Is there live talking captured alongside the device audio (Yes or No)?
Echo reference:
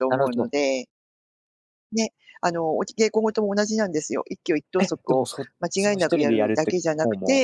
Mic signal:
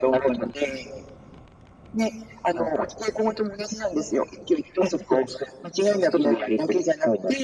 Yes